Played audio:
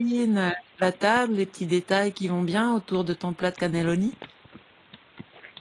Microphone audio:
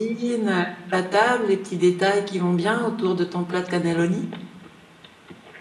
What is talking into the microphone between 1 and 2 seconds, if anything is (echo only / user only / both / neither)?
echo only